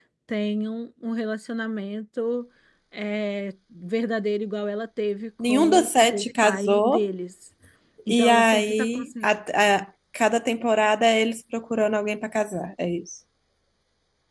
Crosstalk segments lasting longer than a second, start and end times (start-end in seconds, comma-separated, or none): 5.5-7.1, 8.1-9.3